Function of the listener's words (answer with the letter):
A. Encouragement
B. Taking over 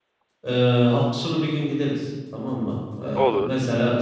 A